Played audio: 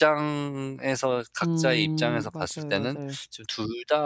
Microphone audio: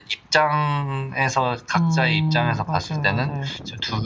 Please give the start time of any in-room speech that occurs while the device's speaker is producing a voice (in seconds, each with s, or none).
none